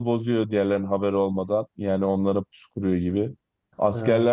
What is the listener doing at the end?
listening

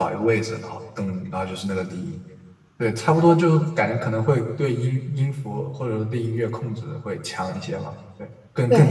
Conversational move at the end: taking over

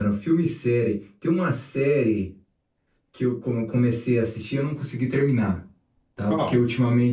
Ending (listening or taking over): listening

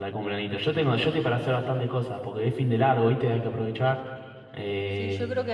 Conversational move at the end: taking over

